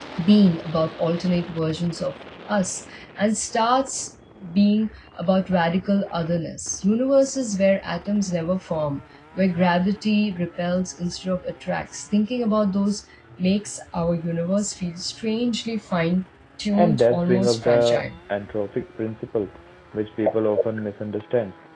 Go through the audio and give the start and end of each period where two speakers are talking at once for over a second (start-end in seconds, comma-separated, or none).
16.8-18.0